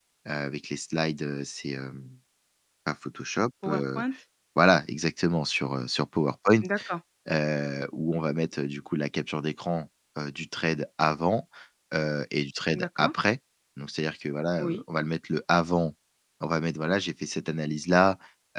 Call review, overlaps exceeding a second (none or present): none